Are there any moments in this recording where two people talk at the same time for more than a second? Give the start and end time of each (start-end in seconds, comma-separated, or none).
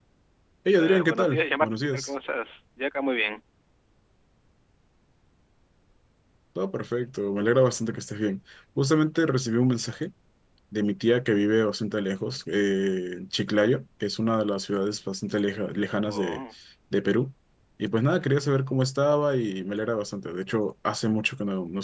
0.8-2.1